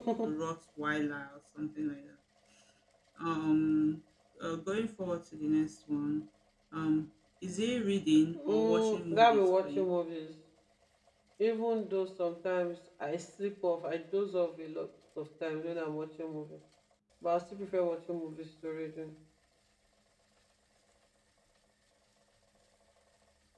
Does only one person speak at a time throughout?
No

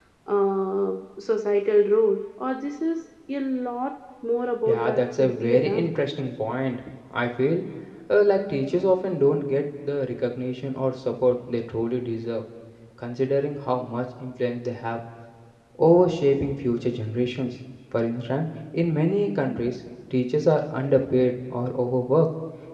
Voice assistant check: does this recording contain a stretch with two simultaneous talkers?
Yes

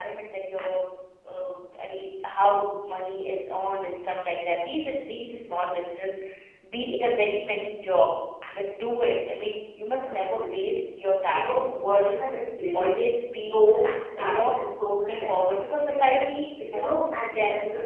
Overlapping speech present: Yes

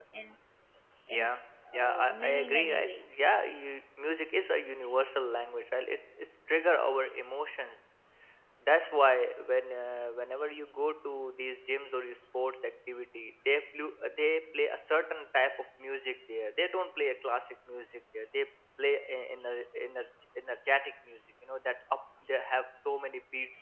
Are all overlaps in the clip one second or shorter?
No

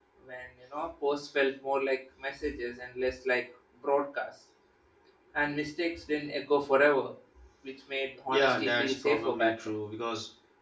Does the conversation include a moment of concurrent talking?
Yes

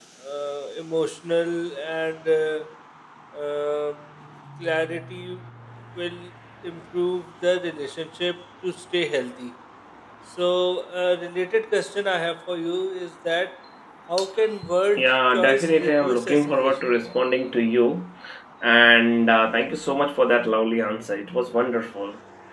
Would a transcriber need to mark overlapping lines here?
Yes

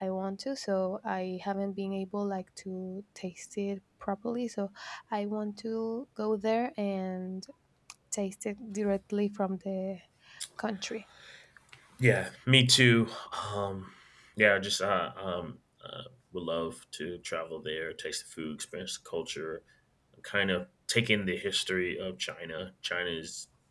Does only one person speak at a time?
Yes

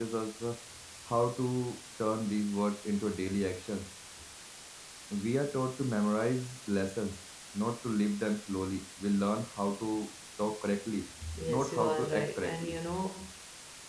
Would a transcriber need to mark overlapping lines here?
Yes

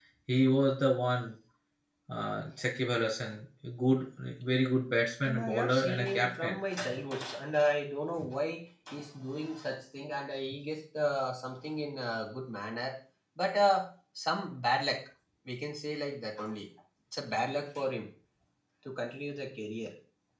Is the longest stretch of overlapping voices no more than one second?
No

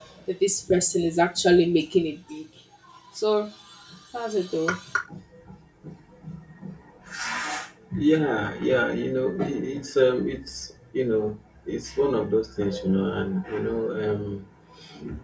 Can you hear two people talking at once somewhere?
No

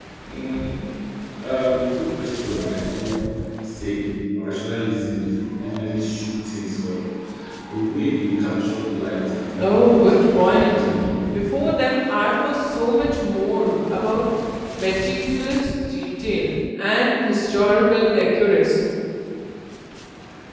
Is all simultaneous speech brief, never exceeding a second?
No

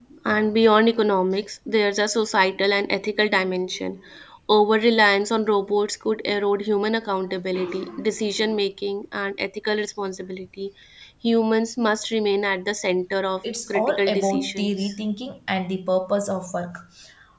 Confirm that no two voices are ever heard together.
No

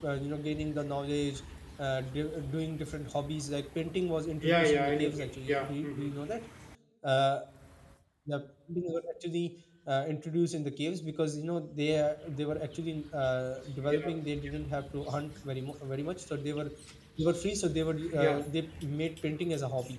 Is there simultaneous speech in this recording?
Yes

